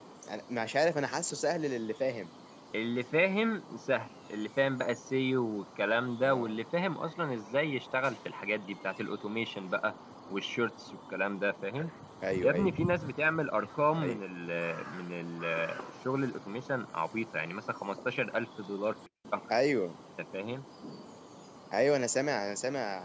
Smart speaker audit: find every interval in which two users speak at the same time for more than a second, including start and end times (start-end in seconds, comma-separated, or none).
none